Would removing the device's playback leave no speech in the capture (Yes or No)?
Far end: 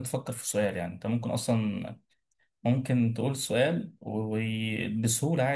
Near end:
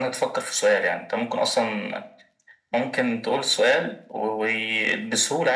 Yes